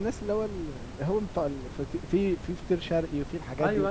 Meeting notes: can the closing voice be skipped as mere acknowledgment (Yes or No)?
No